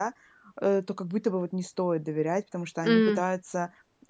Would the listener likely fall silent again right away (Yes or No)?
Yes